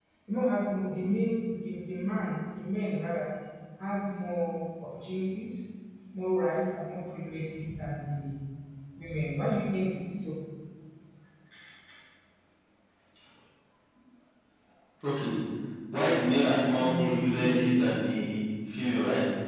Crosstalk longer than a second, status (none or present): present